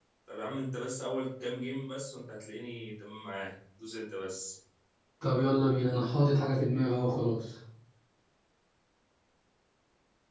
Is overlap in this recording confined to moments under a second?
Yes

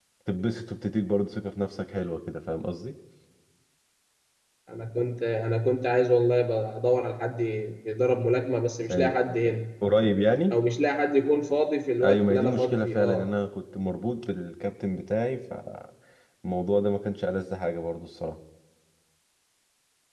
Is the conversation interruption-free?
No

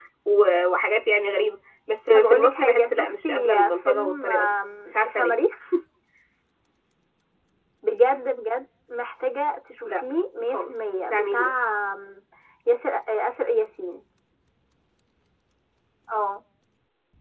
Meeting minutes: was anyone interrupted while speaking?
Yes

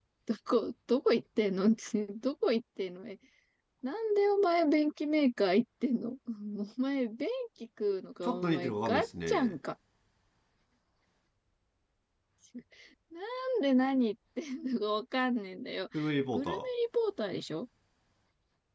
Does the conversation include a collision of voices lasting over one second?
Yes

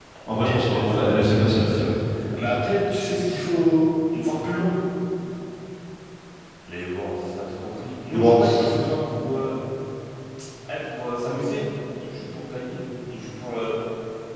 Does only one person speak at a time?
No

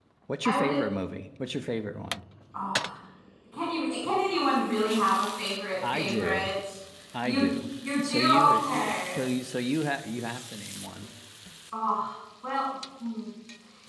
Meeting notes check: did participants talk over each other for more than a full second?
Yes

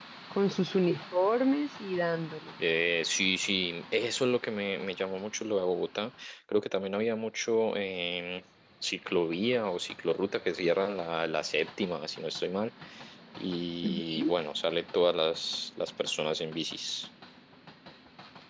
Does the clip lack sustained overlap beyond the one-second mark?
Yes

